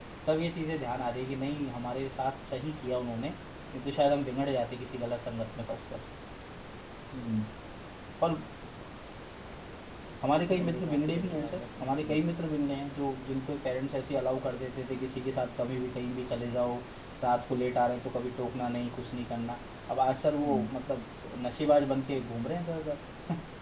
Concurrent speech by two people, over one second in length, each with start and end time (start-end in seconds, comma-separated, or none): 10.5-12.2